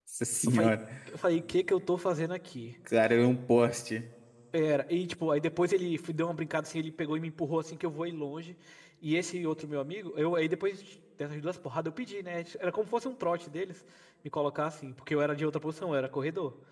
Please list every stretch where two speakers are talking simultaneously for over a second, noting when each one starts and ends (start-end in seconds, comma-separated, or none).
none